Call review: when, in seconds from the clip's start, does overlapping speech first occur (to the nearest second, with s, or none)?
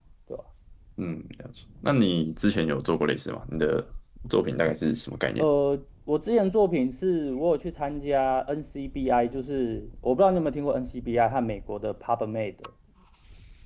none